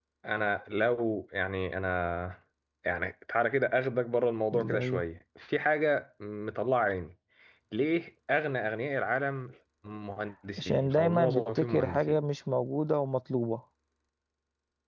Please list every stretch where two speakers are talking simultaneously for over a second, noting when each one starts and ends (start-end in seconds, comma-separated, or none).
10.6-12.2